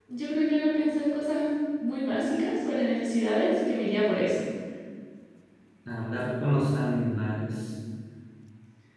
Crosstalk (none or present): none